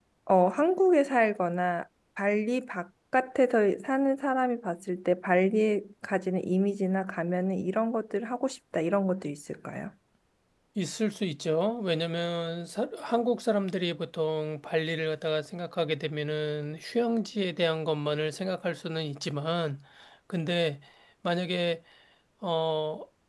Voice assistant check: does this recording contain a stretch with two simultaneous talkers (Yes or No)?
No